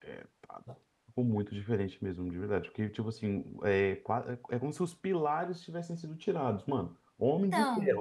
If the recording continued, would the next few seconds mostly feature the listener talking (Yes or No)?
No